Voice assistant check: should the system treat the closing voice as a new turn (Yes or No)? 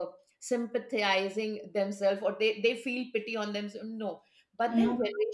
No